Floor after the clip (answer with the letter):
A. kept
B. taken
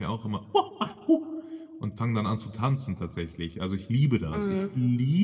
A